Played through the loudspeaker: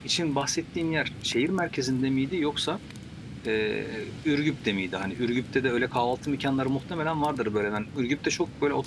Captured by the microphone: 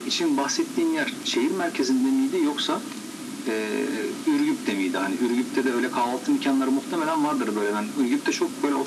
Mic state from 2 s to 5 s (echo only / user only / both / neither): echo only